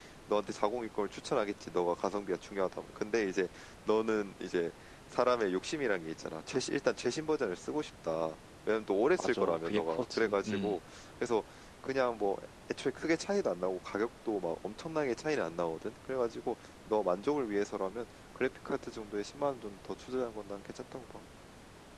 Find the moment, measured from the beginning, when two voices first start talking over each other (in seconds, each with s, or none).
9.2 s